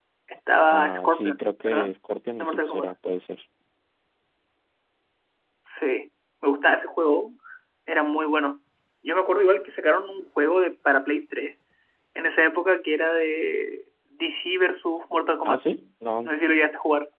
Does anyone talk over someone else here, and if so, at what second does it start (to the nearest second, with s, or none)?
1 s